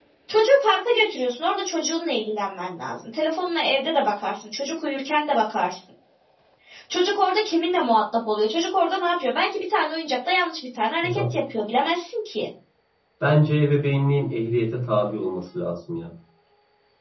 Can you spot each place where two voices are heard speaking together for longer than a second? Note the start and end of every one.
none

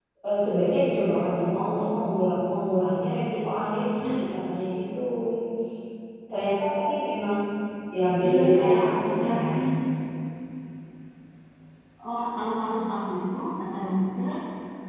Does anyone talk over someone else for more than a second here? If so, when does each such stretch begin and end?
8.3-9.5

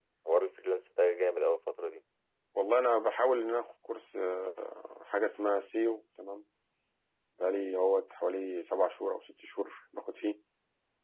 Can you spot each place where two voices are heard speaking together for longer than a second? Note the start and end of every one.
none

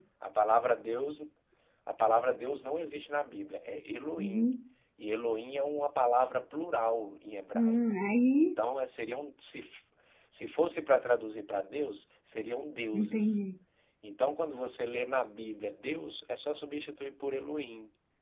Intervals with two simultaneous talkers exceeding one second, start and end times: none

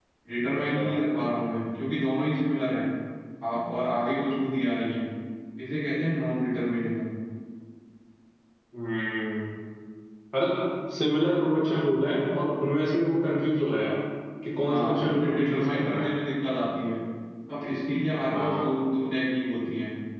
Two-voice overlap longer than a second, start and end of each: 14.7-16.1

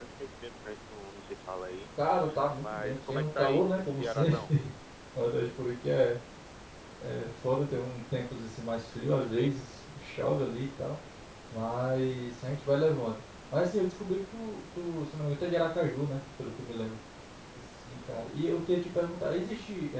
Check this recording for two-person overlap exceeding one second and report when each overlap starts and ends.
2.6-4.4

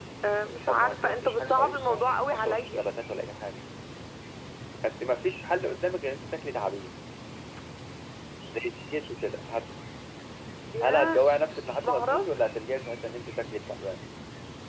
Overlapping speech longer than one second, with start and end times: 0.7-2.8

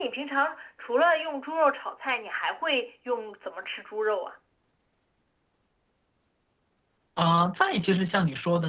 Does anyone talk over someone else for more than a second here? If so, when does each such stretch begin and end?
none

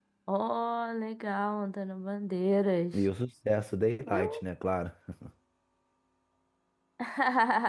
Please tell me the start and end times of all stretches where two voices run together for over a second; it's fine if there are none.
none

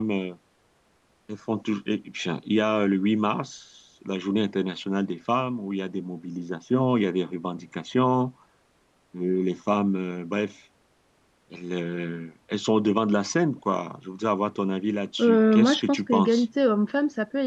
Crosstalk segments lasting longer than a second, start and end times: 15.2-16.4

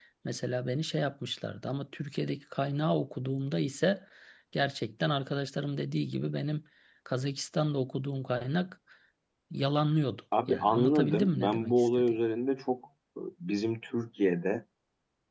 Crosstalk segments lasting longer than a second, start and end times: 10.5-12.2

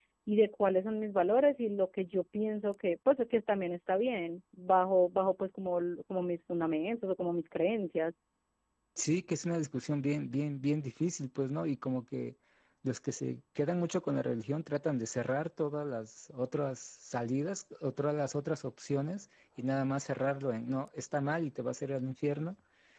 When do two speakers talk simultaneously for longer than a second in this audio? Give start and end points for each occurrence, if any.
none

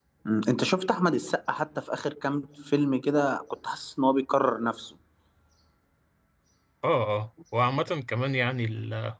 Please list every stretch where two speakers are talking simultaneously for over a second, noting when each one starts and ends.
none

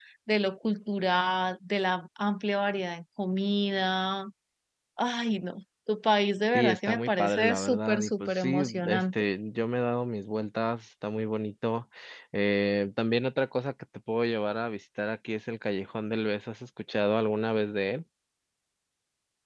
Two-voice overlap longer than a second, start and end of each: 6.5-9.0

